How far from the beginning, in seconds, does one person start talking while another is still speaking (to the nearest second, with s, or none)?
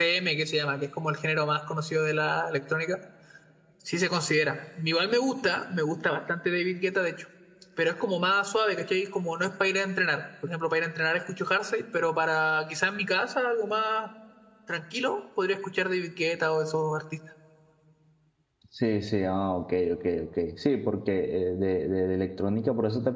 none